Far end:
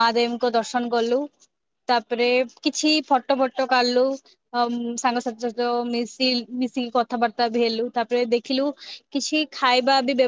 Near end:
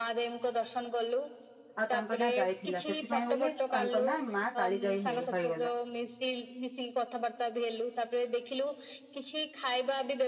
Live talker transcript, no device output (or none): ଆଉ ତାଙ୍କ ନାଁ ଯାଇଥିଲା ସେଥିପାଇଁ ବୋଲି ତାଙ୍କ ନା ମା କାଳି ଯାଇ ହେଇ ହେଇଗଲା।